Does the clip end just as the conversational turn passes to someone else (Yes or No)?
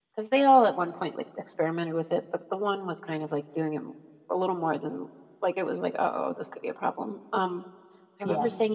No